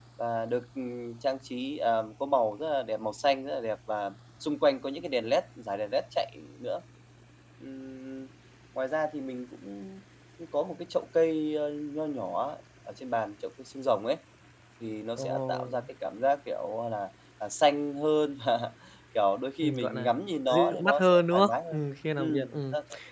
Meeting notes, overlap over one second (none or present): present